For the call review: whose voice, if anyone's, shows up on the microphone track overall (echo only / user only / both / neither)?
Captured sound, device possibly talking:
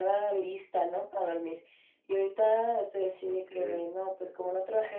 both